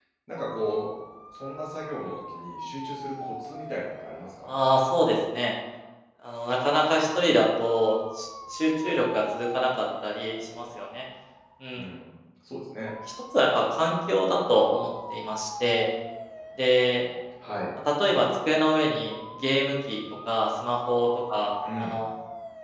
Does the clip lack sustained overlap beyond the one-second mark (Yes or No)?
Yes